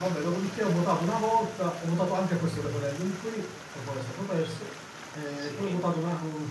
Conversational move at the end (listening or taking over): listening